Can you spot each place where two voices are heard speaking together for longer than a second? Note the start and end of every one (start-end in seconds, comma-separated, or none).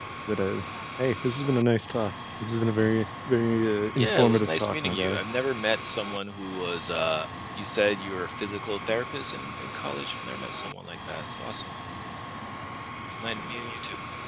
4.0-5.2